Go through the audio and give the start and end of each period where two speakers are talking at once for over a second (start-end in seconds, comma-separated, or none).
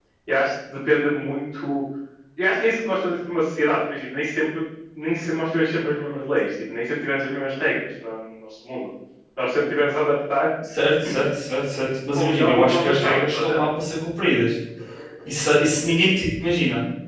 12.1-13.6